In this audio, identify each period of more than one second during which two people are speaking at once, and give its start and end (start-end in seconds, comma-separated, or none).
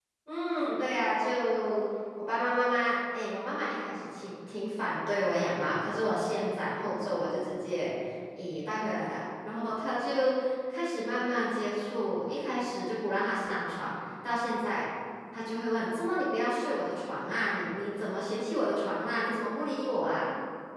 none